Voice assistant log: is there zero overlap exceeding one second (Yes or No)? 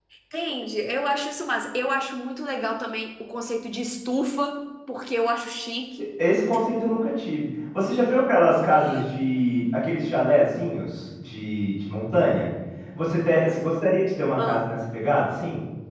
Yes